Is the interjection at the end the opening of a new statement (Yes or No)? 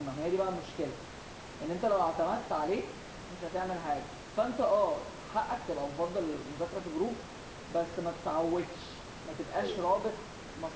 No